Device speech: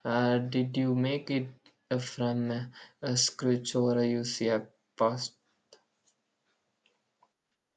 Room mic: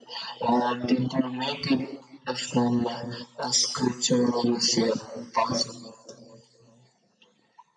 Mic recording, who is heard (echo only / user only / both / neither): echo only